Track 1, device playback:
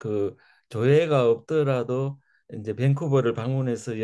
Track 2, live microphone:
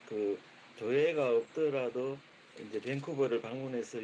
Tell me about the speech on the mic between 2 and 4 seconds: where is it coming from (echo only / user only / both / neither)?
echo only